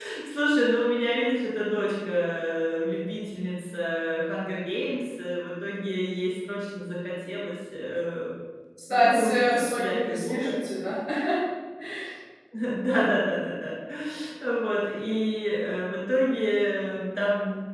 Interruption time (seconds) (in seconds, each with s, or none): 8.9 s